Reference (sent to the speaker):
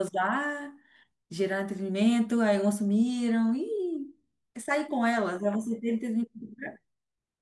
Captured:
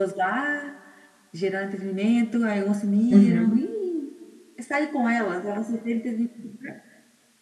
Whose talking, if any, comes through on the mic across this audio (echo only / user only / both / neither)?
both